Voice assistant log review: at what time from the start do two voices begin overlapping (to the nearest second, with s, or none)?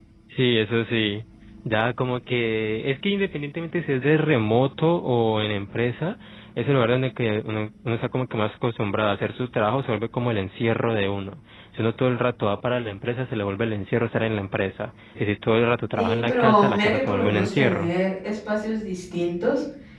16 s